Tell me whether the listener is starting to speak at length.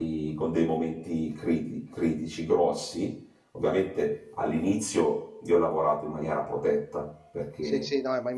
Yes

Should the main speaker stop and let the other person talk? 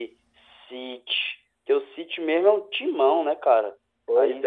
Yes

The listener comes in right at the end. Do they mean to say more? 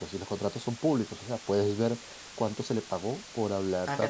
No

